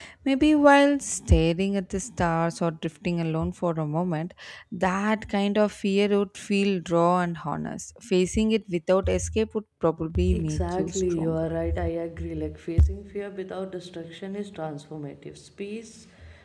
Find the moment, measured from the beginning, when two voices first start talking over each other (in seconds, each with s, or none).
10.2 s